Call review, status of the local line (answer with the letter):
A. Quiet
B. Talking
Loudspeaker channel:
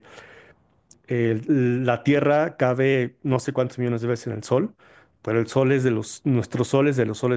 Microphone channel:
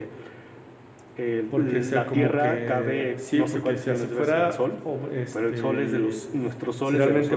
B